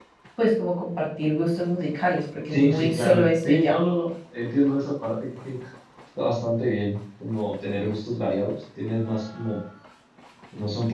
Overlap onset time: 2.5 s

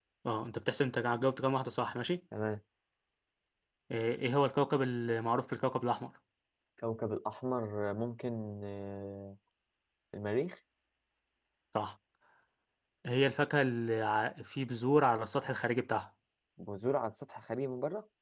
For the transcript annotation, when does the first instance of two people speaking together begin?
none

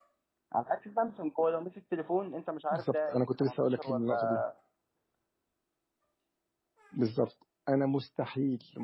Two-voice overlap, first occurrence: 2.7 s

